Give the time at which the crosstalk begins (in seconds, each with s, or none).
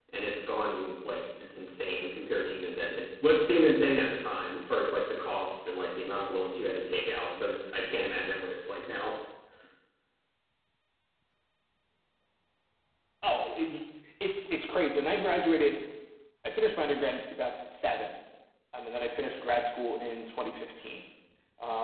none